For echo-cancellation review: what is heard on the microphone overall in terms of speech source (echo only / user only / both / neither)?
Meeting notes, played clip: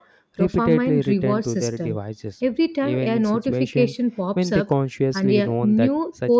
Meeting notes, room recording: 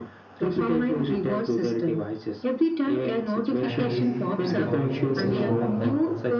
both